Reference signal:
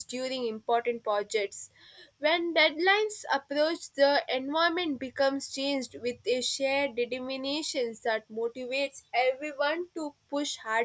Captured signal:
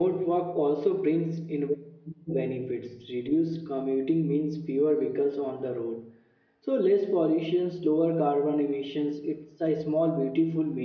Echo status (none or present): none